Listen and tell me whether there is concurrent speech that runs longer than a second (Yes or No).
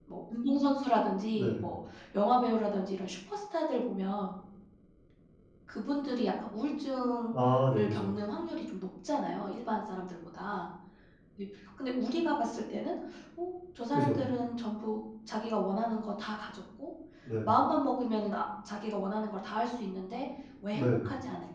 No